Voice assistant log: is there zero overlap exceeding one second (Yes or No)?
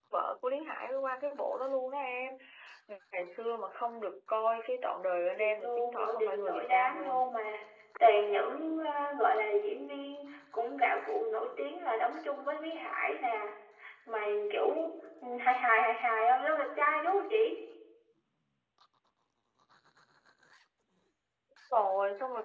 No